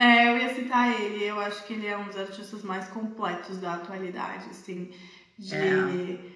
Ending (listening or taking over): listening